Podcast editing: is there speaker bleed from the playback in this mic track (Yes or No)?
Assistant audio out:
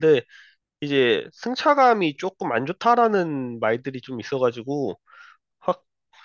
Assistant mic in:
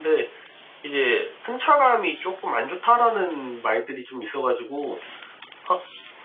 Yes